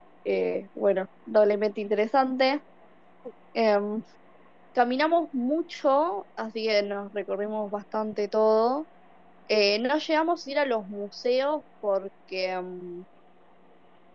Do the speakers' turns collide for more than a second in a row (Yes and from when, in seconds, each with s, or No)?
No